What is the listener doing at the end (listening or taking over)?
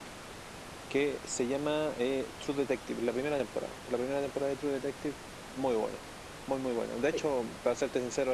listening